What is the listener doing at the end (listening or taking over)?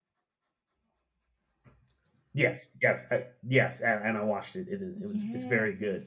taking over